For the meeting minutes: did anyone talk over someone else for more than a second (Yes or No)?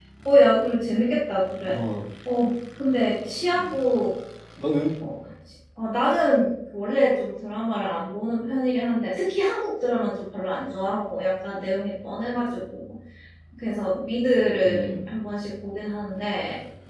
No